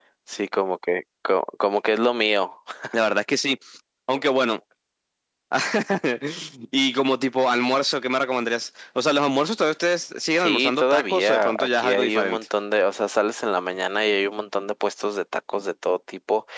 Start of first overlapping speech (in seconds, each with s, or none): 10.4 s